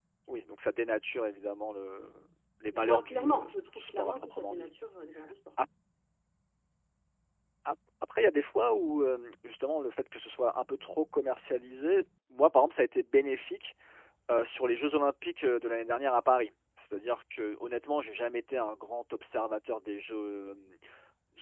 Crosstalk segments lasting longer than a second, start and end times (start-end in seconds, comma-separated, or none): 2.7-4.7